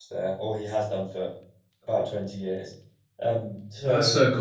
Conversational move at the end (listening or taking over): taking over